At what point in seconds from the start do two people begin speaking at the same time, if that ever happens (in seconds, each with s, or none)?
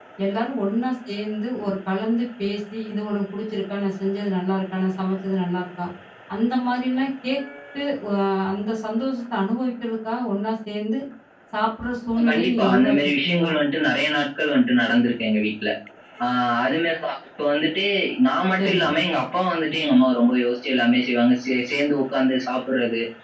12.2 s